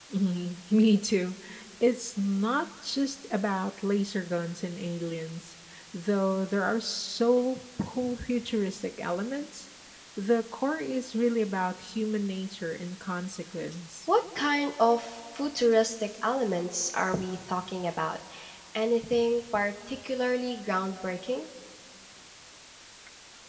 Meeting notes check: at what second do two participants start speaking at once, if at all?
none

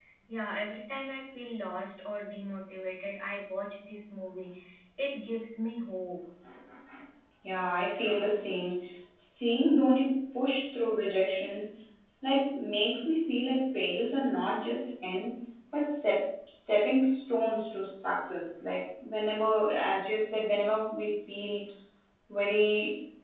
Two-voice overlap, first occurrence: none

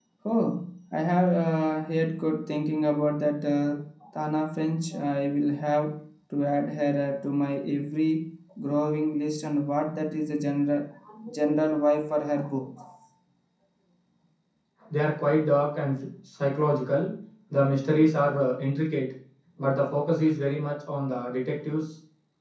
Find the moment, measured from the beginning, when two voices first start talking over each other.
none

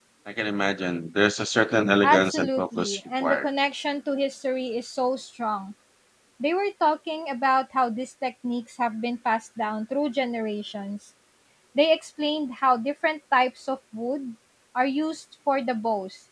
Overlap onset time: 2.0 s

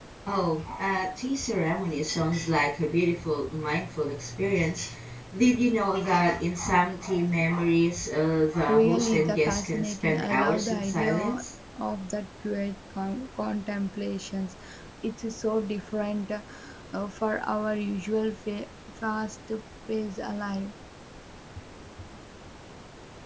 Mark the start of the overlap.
8.7 s

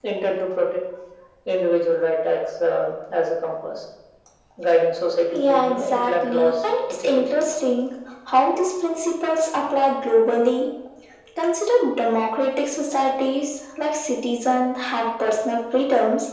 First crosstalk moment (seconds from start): 5.3 s

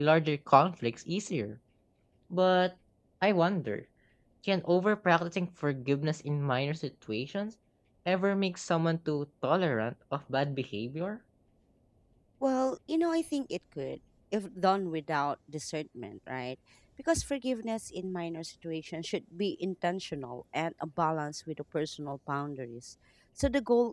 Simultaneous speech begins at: none

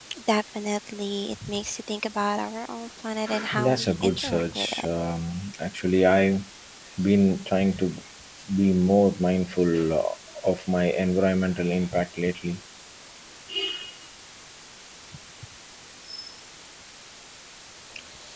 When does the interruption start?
3.6 s

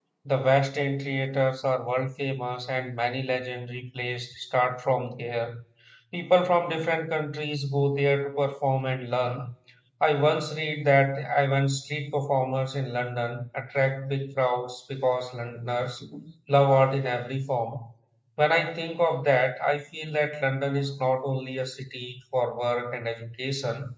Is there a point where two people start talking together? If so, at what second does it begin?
none

